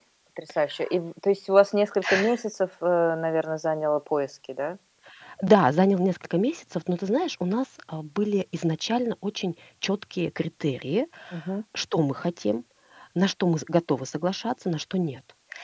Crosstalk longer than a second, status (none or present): none